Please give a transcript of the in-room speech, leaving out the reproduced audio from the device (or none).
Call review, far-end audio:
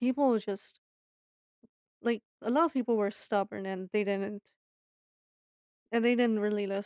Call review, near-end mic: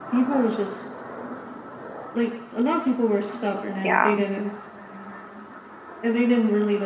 Yeah.